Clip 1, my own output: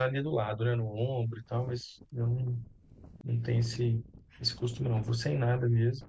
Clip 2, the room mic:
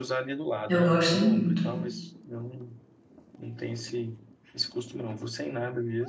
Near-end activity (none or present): present